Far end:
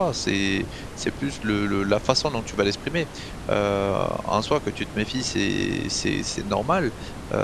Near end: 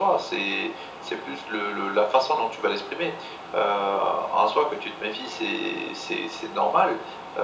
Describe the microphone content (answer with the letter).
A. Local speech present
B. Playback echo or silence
B